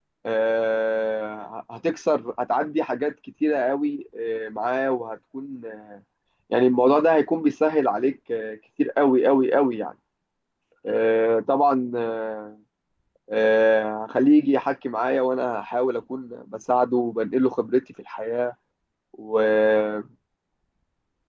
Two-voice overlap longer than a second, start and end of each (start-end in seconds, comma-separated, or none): none